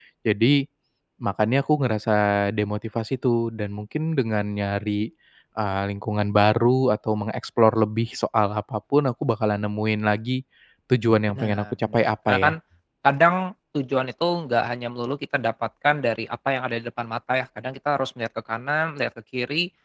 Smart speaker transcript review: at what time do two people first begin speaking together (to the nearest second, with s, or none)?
11 s